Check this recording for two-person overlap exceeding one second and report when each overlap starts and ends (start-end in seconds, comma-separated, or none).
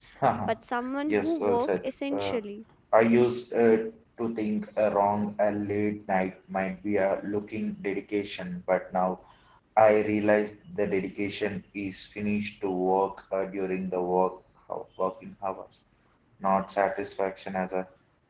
1.1-2.4